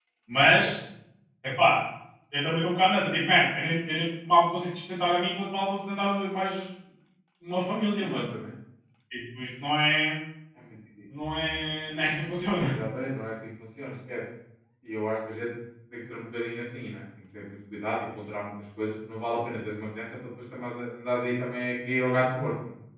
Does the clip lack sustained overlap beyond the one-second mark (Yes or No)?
Yes